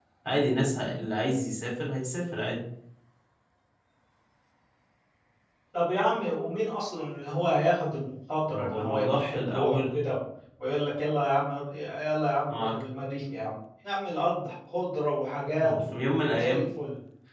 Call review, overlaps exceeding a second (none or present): present